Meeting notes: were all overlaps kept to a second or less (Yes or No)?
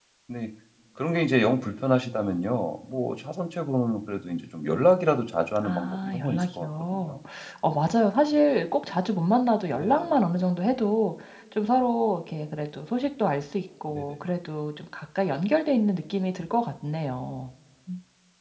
No